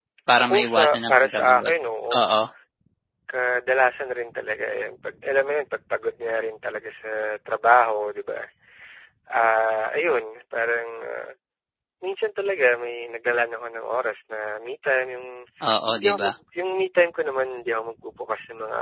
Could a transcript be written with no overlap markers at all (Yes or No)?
No